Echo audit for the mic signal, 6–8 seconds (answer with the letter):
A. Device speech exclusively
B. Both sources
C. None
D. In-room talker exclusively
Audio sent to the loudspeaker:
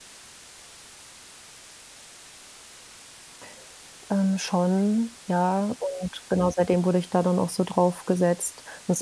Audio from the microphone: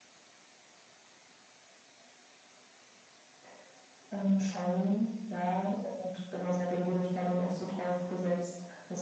A